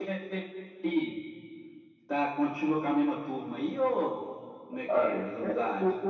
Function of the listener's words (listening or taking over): taking over